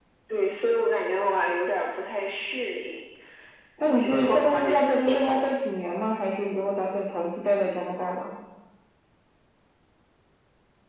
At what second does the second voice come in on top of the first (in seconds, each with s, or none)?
4.0 s